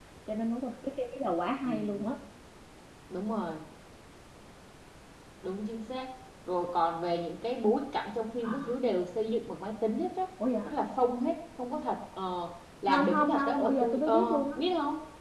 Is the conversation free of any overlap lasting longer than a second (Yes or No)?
No